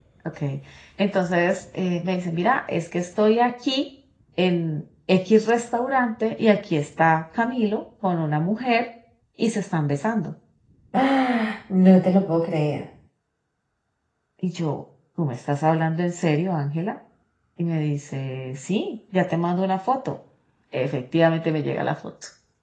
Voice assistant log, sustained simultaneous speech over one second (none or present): none